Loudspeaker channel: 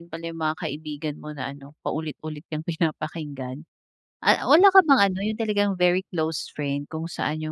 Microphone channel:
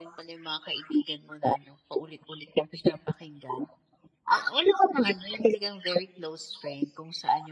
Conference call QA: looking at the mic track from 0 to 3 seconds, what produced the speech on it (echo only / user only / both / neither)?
echo only